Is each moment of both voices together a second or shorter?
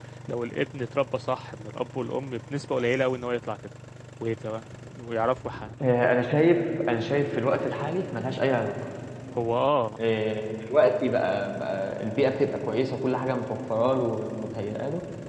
Yes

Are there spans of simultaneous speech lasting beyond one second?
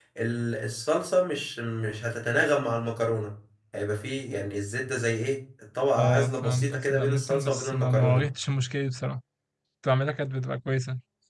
Yes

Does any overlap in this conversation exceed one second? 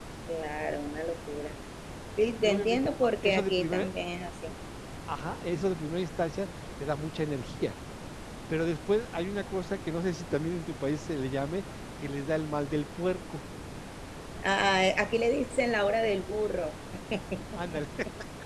Yes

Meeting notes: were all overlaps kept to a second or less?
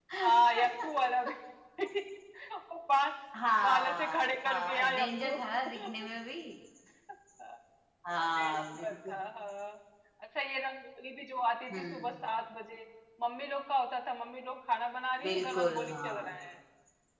No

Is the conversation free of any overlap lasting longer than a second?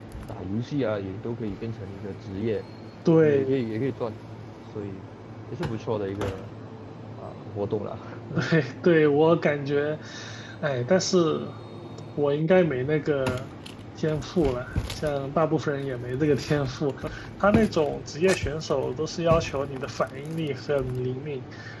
Yes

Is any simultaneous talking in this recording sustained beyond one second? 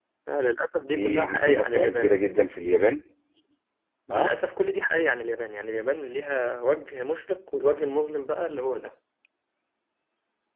Yes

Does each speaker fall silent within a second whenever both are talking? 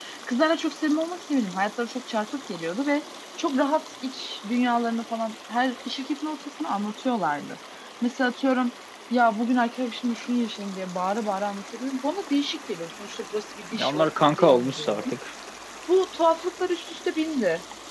No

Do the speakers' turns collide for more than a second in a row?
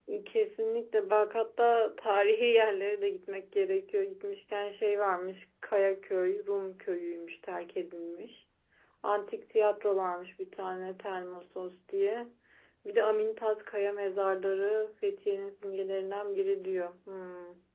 No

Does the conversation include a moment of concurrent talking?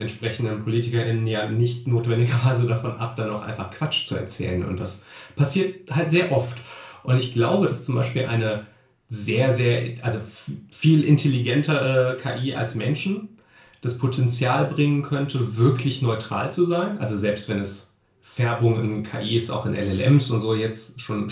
No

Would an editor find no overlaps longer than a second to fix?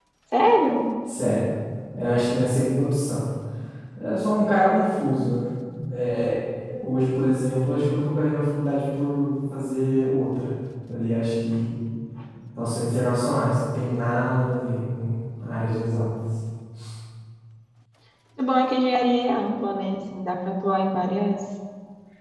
Yes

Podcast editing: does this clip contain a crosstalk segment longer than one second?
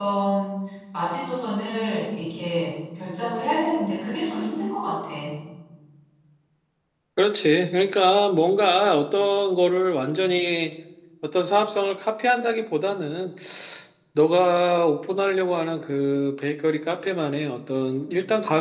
No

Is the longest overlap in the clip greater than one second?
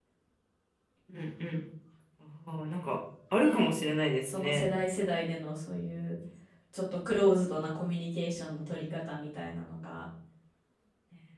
No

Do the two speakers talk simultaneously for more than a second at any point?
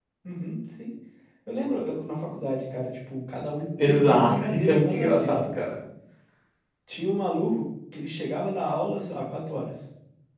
Yes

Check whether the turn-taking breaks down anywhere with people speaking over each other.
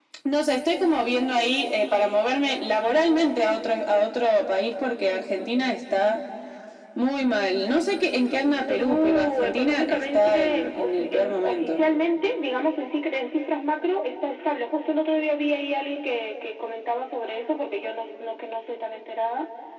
Yes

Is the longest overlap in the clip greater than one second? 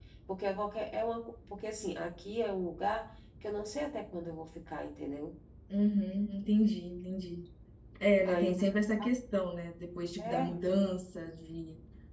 No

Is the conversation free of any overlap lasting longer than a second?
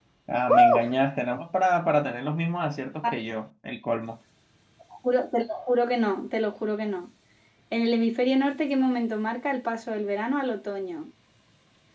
Yes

